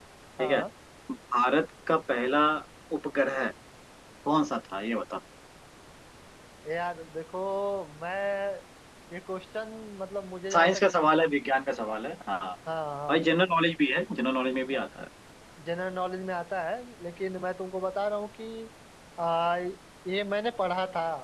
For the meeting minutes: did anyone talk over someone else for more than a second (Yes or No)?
No